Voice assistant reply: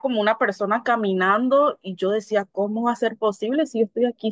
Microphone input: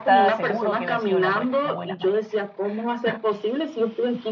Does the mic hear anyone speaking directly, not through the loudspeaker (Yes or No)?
Yes